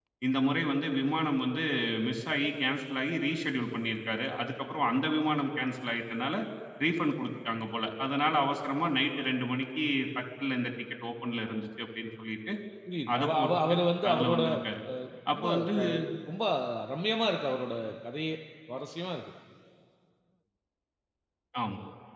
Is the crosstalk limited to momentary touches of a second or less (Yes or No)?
No